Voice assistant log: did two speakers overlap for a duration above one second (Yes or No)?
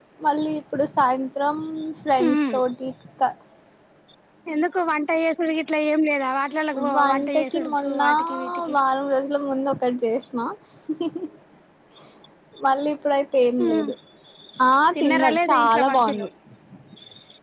Yes